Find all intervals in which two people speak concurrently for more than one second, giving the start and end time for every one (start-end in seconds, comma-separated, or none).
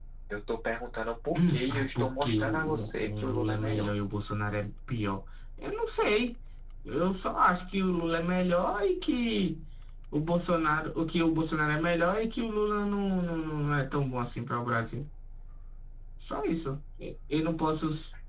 1.4-3.9